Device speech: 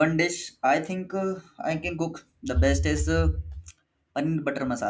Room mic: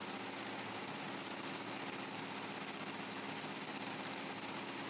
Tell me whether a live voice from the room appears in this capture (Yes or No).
No